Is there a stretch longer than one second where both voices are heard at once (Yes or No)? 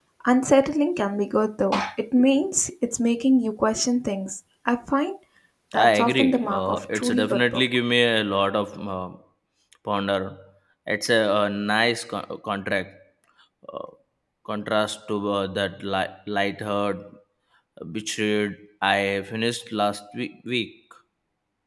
Yes